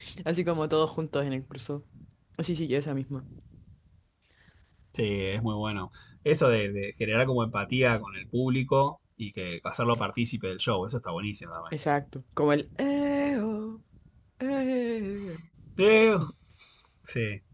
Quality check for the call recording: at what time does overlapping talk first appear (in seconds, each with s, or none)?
none